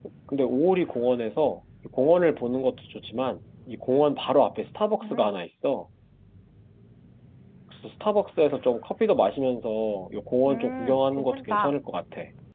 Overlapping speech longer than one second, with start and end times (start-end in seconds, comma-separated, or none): 10.5-11.7